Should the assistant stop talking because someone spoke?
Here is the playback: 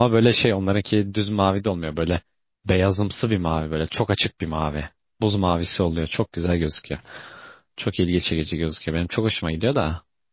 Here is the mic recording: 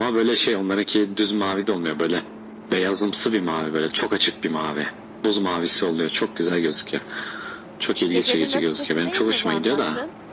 Yes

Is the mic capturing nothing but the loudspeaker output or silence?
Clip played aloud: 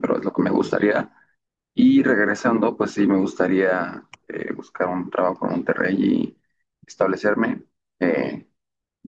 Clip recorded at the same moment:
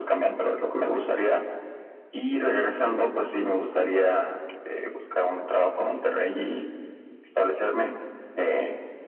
Yes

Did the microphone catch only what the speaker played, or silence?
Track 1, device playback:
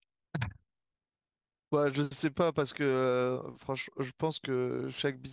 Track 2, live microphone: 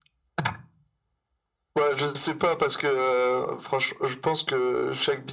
Yes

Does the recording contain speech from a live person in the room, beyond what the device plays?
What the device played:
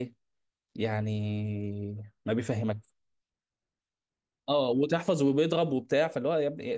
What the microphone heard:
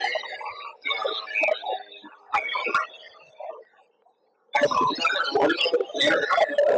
No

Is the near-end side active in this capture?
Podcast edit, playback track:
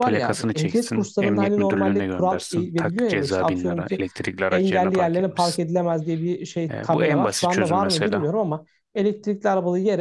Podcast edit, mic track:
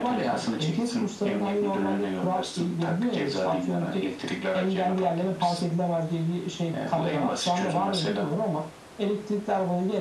No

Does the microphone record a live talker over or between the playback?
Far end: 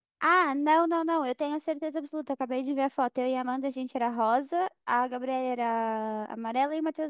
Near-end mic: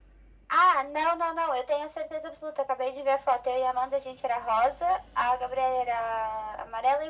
No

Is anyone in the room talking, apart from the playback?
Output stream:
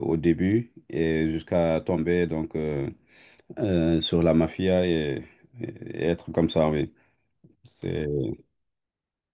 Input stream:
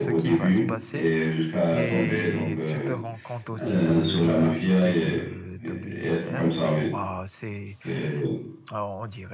Yes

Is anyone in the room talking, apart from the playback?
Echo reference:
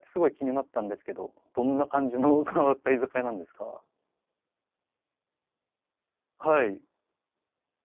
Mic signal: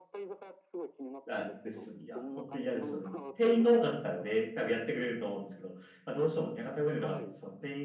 Yes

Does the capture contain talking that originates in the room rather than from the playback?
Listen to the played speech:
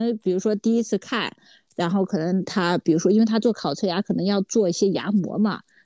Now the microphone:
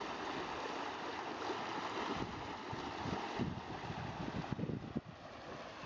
No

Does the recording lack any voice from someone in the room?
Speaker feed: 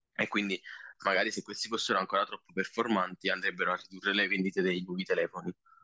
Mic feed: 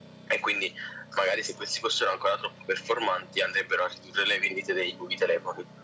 Yes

